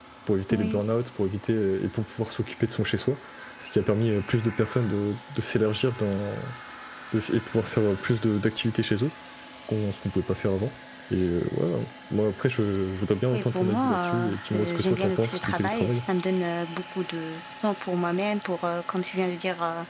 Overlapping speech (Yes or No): Yes